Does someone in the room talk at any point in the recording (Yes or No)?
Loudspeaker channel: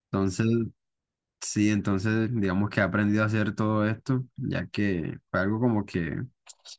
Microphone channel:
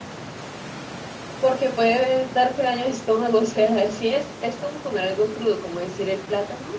Yes